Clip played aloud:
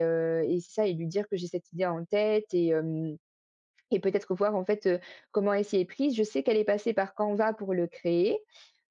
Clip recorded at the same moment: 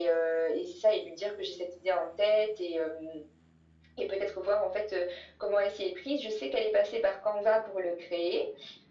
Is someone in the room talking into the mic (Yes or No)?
No